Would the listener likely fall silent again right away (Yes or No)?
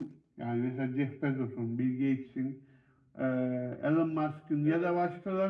Yes